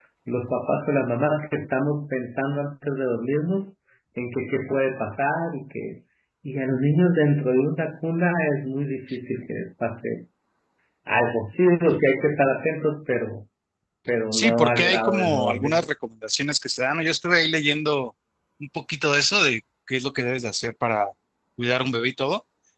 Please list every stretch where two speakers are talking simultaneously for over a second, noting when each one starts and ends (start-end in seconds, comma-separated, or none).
14.3-15.8